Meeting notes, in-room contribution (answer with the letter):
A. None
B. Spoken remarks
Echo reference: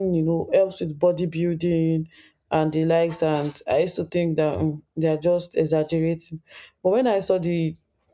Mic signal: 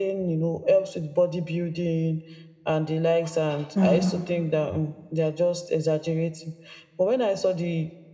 B